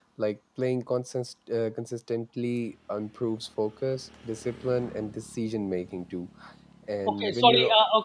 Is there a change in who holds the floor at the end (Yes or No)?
Yes